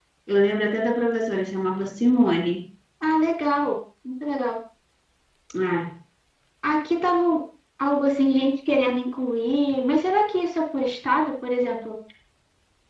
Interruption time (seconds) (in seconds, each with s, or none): none